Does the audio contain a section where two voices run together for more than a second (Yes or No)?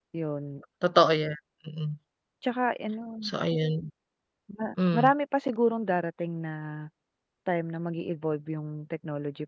No